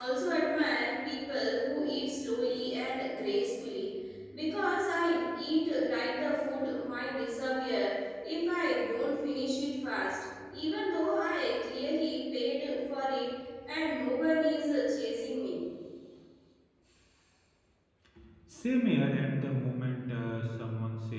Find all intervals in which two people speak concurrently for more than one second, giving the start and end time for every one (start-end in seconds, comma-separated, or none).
none